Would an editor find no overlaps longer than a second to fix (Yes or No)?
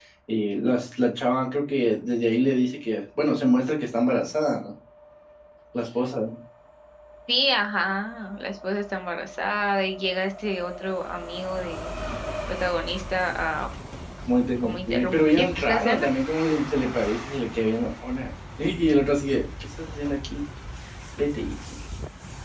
No